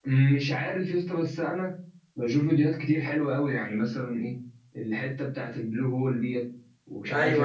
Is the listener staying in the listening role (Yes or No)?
No